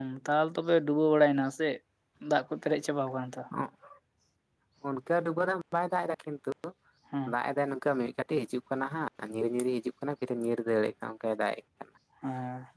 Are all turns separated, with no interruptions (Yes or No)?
Yes